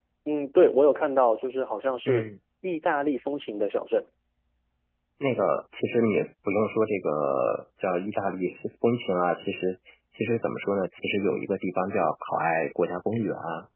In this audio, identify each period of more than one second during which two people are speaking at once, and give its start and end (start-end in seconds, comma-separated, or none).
none